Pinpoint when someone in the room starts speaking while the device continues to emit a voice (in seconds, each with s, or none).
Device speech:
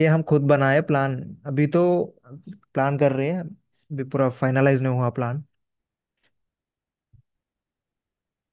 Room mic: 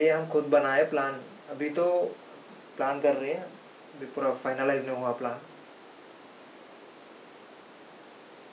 none